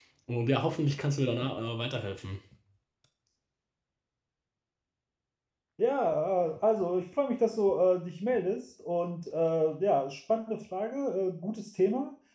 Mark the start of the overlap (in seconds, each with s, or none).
none